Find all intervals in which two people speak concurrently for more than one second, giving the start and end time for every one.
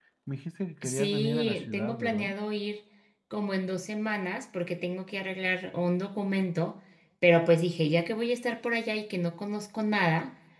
0.8-2.3

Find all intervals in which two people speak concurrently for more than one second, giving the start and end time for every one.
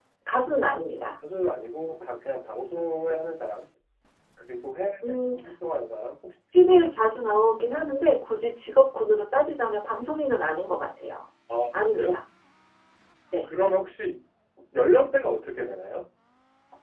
none

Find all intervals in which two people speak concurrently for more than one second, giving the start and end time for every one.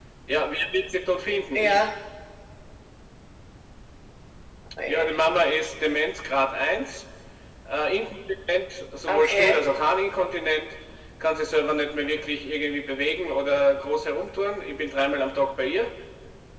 none

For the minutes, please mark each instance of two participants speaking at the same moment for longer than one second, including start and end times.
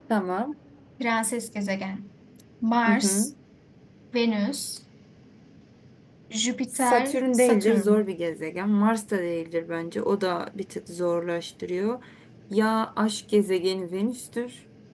6.7-8.1

